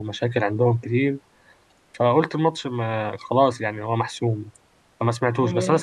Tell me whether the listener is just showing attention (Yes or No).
Yes